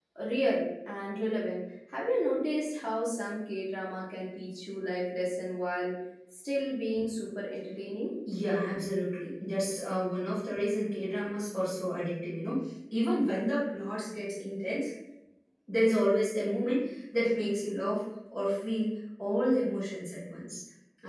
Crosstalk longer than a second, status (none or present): none